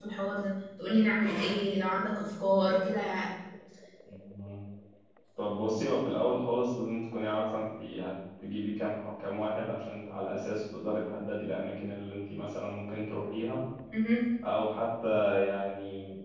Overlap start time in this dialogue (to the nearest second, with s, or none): none